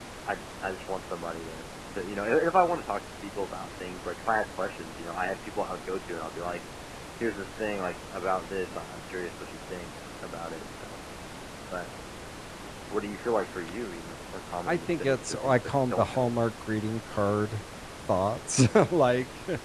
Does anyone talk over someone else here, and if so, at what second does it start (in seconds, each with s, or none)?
14.7 s